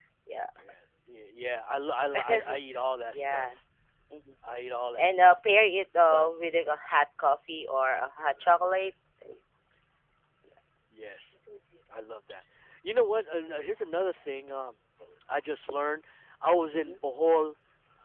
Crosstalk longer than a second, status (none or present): none